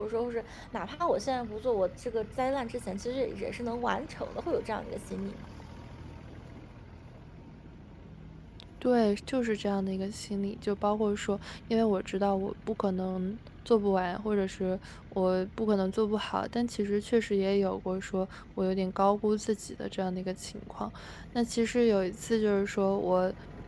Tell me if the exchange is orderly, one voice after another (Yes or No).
Yes